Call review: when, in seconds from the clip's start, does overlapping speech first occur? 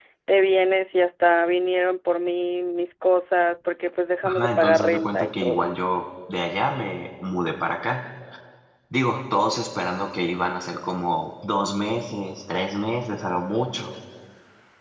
4.2 s

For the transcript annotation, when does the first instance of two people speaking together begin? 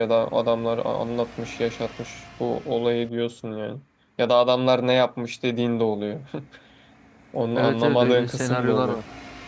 7.5 s

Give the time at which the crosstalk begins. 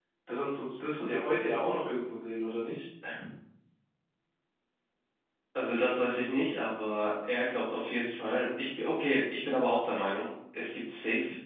none

